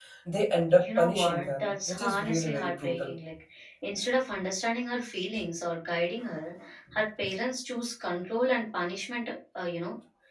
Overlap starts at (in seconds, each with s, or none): 0.8 s